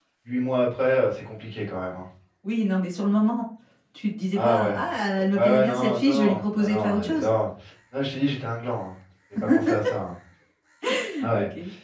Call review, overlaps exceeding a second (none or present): present